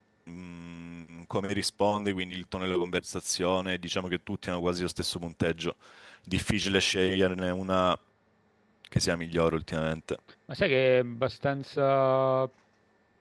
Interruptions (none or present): none